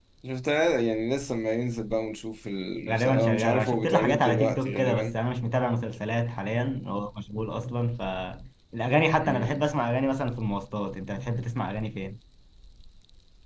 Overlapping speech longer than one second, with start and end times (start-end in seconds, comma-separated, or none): 2.9-5.2